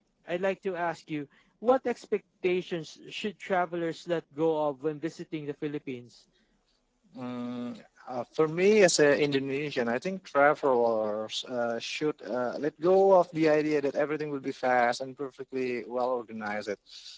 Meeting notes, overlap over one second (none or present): none